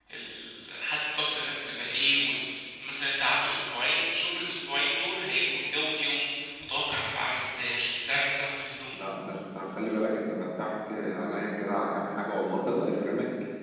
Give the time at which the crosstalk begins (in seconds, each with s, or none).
none